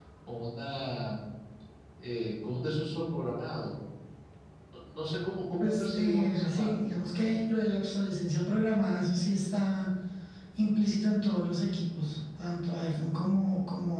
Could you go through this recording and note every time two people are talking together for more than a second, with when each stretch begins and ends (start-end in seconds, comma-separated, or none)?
5.6-7.0